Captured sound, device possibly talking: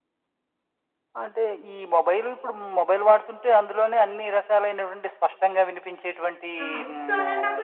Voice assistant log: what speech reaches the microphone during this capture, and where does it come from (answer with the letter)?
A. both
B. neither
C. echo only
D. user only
A